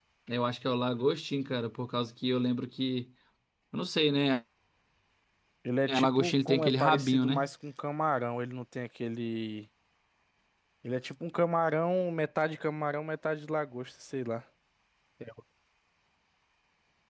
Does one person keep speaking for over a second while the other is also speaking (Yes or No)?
Yes